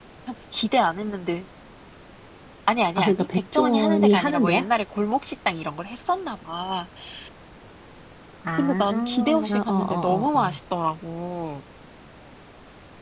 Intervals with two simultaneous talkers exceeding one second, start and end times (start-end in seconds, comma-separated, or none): 3.0-4.7, 8.6-10.6